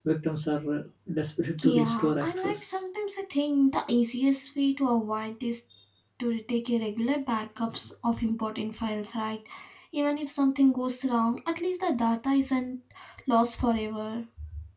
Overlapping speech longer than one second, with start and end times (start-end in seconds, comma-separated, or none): 1.6-2.8